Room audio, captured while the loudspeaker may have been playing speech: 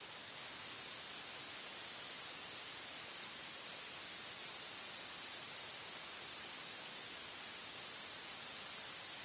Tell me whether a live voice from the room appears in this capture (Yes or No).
No